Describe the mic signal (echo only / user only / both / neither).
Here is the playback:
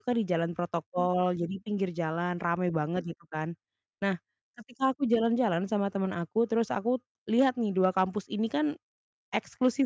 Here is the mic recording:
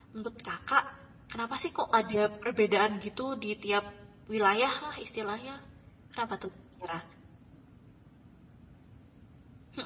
user only